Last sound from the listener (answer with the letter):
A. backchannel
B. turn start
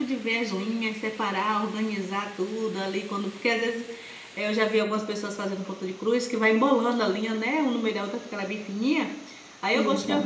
A